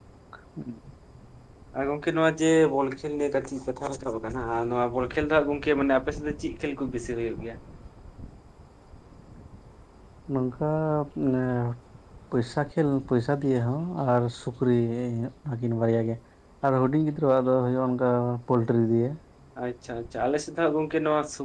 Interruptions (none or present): none